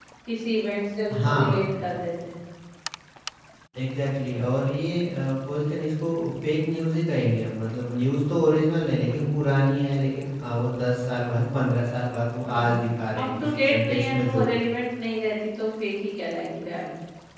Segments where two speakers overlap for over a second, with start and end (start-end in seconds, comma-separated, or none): 13.2-14.5